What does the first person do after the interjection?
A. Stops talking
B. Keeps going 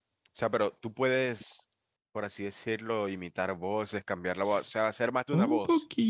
A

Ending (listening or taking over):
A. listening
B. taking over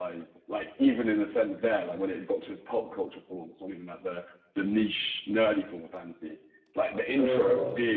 A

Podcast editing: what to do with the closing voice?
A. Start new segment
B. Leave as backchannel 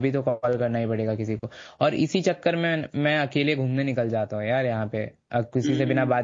B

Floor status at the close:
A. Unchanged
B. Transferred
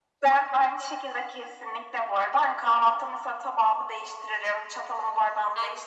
A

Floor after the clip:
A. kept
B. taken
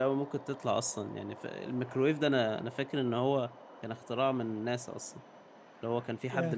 A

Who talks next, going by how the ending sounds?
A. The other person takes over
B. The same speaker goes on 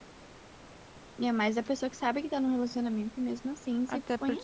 A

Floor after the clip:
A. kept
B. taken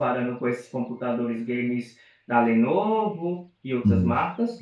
B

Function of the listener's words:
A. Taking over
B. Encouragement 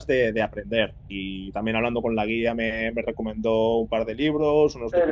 A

